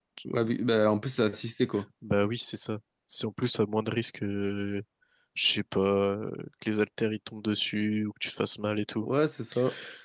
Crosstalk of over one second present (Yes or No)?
No